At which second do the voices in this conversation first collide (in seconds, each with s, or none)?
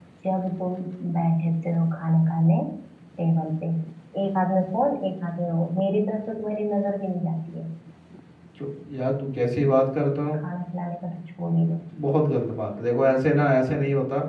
none